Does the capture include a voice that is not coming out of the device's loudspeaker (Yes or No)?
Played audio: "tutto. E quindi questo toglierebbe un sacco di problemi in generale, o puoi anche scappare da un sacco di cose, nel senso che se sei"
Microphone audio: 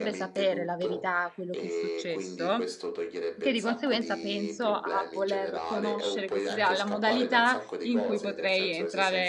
Yes